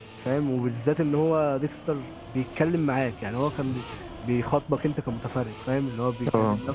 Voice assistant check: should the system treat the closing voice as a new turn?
No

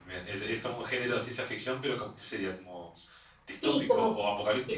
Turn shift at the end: Yes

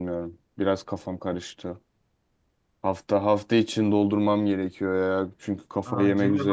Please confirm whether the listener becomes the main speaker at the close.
Yes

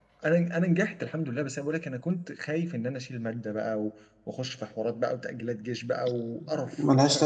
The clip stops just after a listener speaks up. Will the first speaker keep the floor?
No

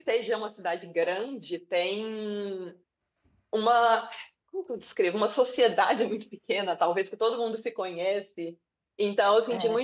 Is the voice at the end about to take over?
No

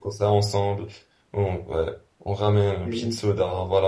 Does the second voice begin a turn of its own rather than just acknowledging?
No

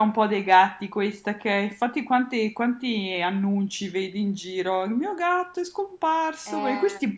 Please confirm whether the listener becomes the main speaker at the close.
No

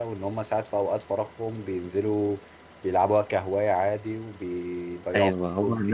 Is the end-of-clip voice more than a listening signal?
Yes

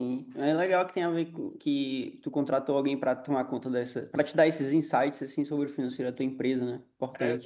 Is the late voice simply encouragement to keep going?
No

